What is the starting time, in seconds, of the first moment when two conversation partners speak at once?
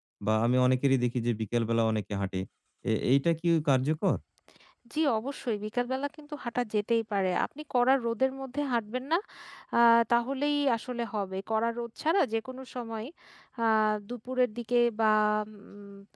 none

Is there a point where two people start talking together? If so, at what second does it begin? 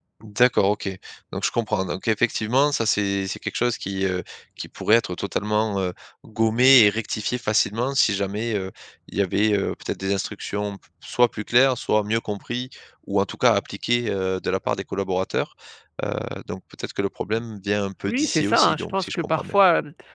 18 s

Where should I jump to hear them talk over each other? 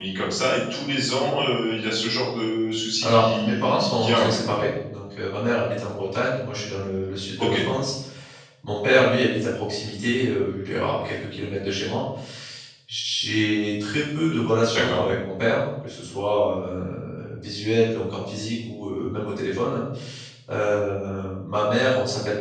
3 s

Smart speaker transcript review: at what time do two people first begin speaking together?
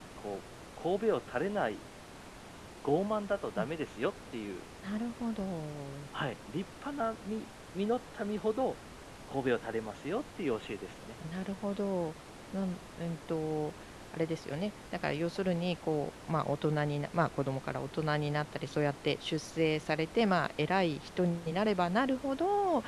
none

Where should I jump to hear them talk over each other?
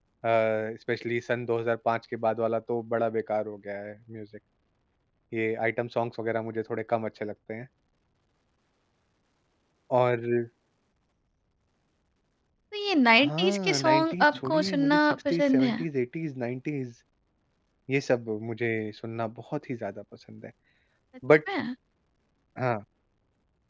13 s

